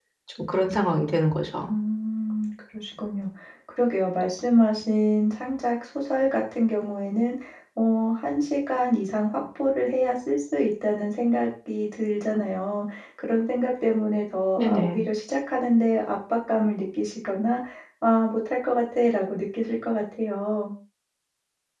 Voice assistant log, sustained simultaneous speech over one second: none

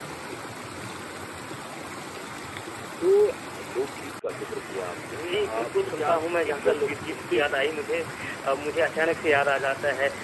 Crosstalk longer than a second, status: present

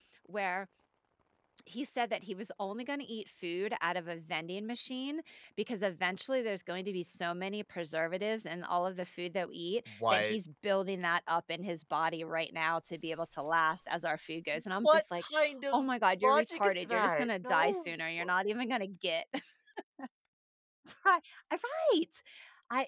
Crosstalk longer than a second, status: present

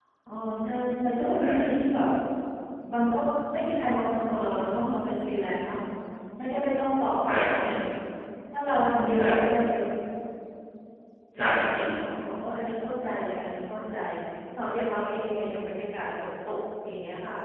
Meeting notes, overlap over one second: none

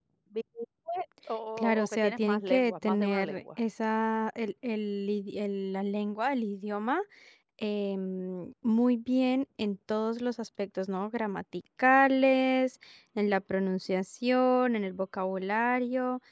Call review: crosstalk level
present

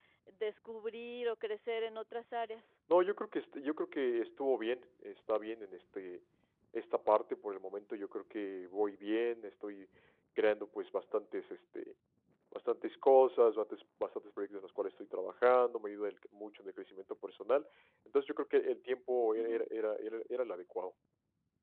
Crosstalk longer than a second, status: none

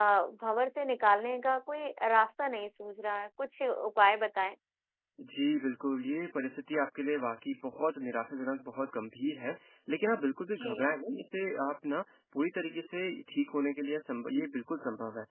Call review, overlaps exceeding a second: none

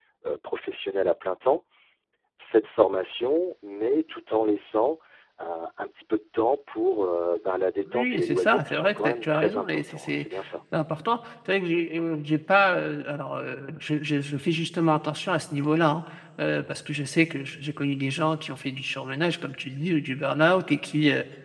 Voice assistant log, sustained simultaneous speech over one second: present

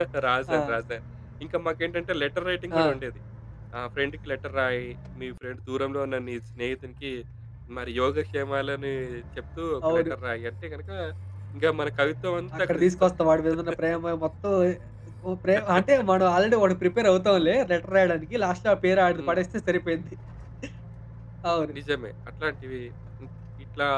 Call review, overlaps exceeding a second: none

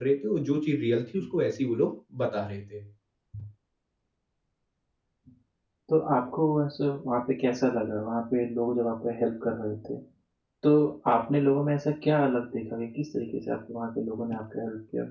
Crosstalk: none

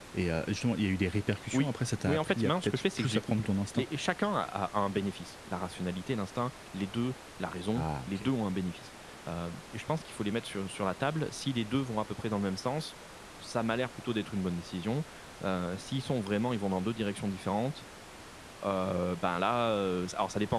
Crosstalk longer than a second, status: present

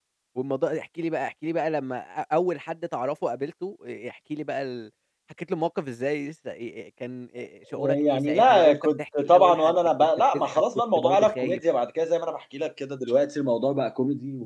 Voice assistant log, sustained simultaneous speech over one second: present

